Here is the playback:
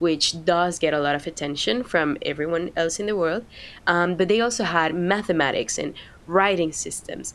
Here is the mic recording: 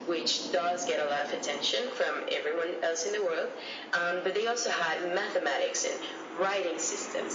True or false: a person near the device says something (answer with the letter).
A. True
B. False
B